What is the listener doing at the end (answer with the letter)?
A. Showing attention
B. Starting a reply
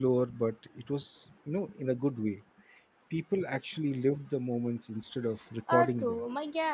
B